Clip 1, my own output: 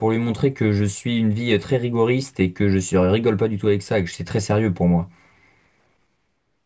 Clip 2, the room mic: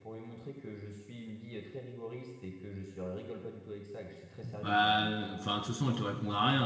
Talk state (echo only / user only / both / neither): both